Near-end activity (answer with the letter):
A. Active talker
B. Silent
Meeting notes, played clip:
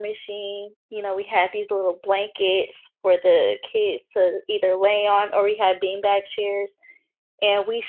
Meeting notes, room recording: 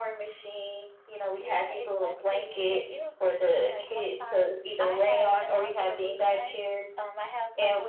A